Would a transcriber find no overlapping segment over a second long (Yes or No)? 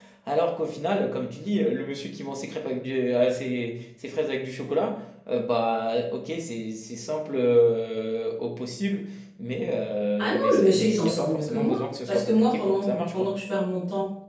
No